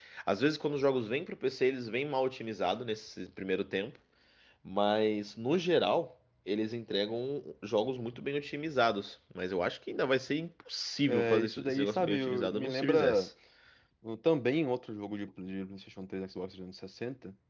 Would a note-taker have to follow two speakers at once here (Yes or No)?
Yes